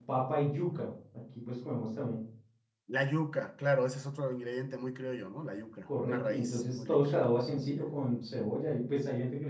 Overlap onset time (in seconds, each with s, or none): 5.8 s